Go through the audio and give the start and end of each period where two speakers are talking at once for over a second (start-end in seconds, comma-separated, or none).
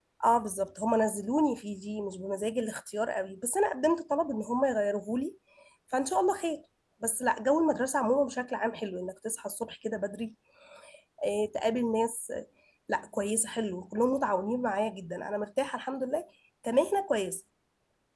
none